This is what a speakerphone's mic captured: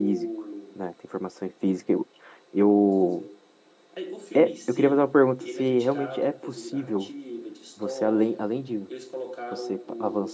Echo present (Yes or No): Yes